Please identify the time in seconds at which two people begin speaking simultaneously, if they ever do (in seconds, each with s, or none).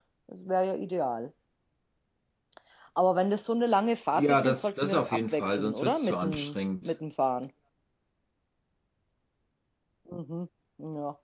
4.2 s